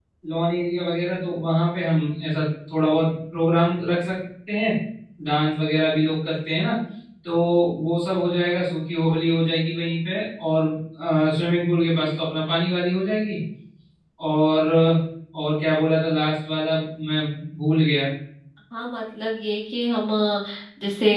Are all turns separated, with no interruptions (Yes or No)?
Yes